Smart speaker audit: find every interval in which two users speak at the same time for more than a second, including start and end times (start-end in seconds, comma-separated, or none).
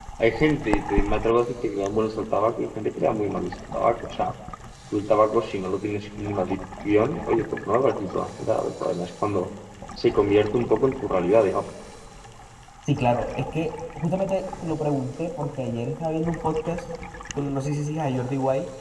none